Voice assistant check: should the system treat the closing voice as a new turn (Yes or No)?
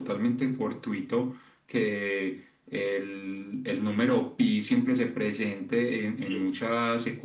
No